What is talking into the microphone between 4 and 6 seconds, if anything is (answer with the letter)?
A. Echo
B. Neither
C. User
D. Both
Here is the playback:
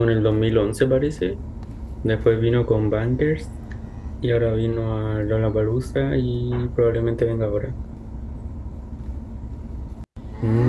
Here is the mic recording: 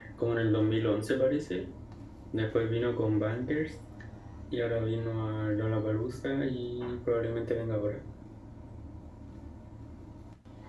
A